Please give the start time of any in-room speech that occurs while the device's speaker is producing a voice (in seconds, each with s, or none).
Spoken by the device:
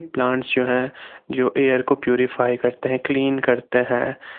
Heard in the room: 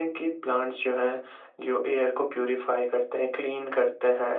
none